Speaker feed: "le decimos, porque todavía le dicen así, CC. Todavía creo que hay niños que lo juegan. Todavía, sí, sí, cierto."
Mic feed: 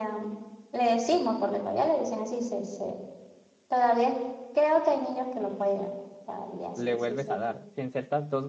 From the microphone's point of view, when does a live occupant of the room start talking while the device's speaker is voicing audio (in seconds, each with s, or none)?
6.7 s